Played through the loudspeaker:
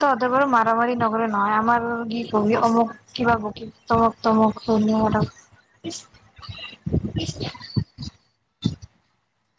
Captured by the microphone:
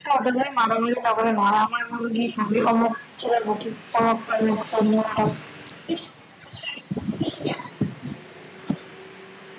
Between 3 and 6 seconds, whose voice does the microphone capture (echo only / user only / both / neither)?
echo only